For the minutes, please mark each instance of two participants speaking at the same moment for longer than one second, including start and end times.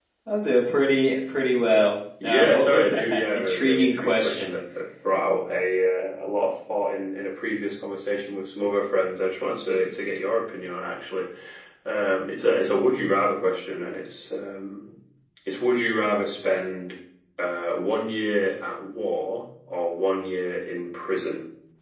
2.2-4.5

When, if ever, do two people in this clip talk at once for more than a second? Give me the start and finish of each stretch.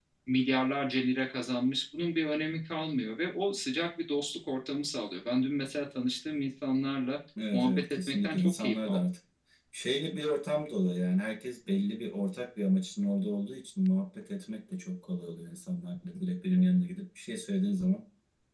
7.5-9.0

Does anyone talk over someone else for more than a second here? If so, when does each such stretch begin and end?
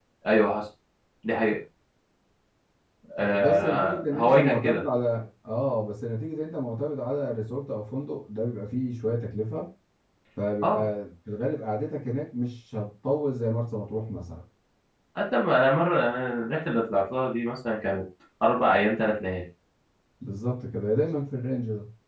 3.2-4.8

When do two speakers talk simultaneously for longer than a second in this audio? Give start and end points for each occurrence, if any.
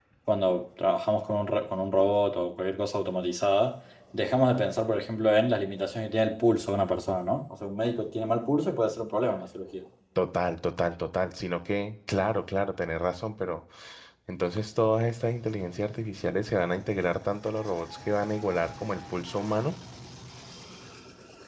none

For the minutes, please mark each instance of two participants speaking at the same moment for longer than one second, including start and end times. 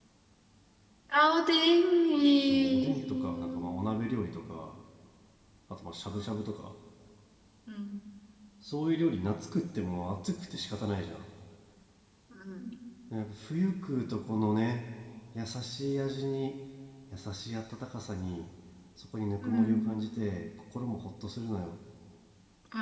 2.4-3.6

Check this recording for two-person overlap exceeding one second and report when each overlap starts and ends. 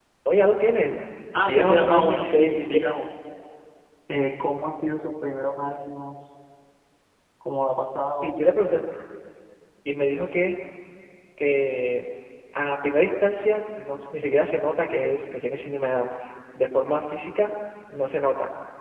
1.5-2.9

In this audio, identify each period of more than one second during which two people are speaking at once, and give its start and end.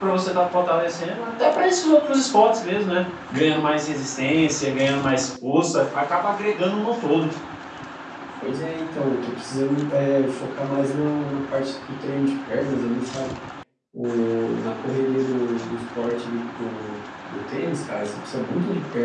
none

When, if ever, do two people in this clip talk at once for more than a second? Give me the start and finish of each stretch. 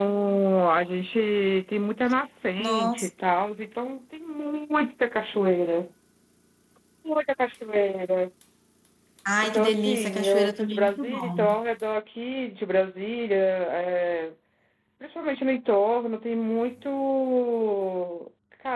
9.4-11.5

